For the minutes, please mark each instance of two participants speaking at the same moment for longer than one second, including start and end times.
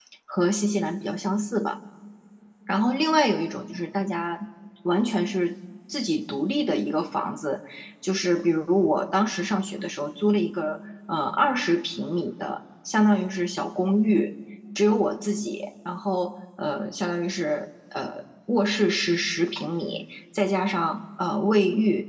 none

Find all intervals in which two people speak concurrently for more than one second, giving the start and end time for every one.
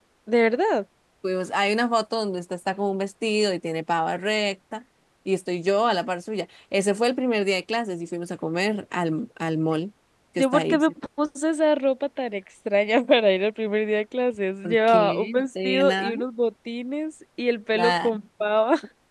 14.6-16.1

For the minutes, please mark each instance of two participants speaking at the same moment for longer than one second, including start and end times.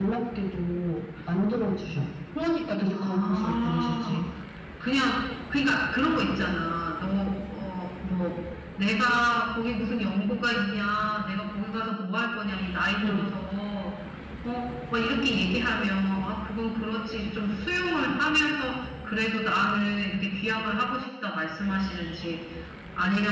2.9-4.2

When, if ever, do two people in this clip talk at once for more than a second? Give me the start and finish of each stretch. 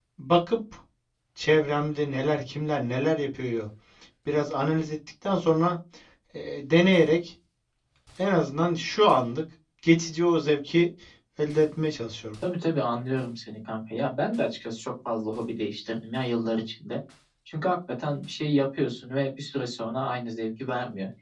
none

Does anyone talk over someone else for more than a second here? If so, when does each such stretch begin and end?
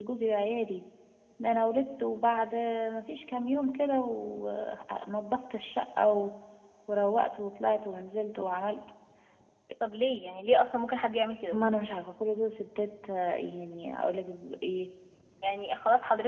none

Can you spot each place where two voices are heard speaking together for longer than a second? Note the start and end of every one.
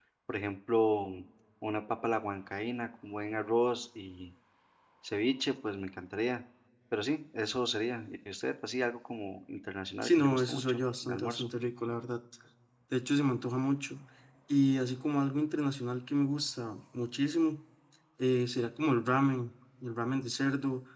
10.0-11.5

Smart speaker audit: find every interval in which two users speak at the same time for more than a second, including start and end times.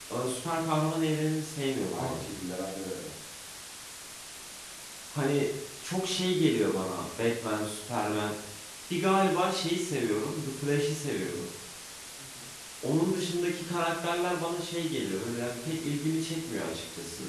none

